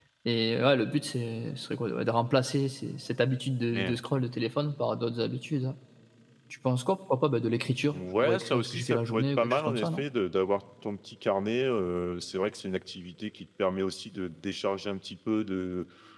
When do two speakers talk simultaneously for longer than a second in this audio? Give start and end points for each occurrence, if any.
7.9-10.0

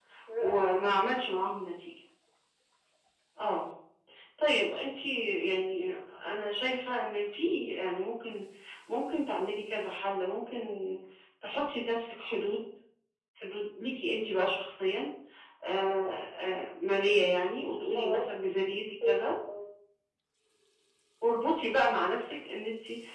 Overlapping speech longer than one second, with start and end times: none

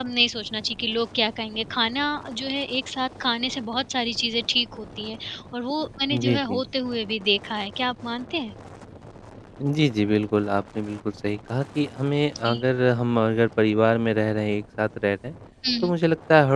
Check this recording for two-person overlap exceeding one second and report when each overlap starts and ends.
none

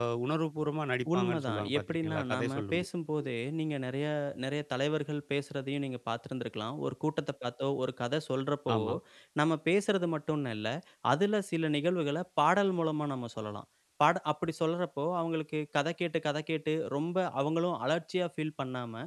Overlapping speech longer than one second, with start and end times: 1.1-2.9

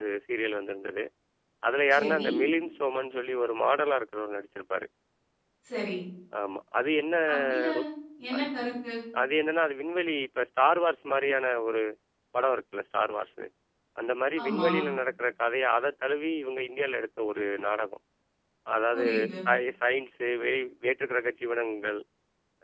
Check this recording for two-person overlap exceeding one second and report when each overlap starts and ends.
none

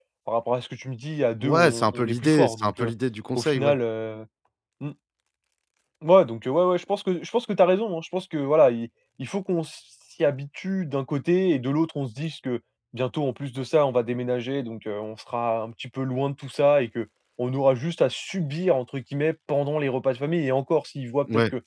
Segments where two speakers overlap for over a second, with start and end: 1.4-2.9

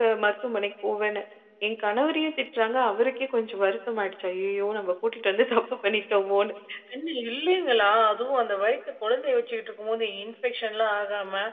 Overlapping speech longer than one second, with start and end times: none

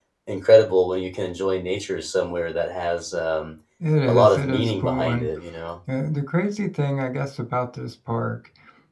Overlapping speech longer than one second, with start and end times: 4.1-5.3

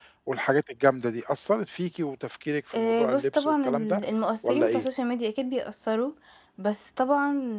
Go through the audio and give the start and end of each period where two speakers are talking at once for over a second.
2.7-4.0

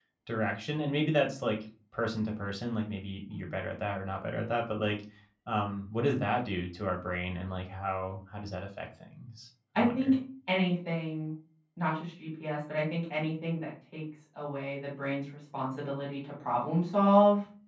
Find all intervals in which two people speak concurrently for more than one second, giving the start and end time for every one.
none

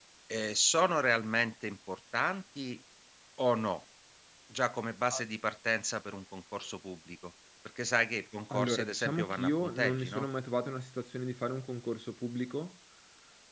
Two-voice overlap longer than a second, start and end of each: 8.5-10.3

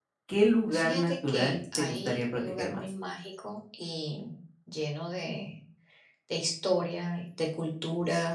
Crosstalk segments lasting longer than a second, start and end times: 0.7-2.9

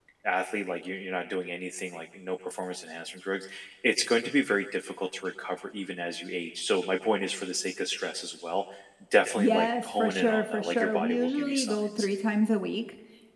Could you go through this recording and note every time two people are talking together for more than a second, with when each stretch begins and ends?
9.3-12.1

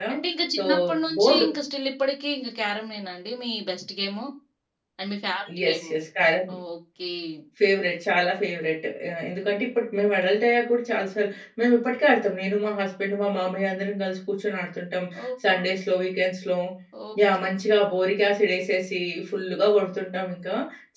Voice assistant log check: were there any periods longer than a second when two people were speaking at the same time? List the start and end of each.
none

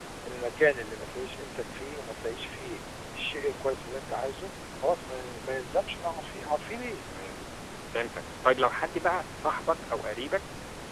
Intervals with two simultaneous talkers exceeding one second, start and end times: none

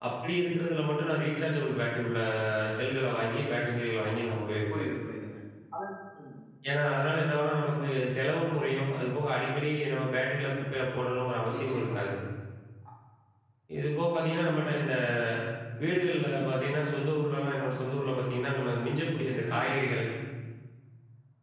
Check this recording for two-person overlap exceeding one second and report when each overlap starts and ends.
none

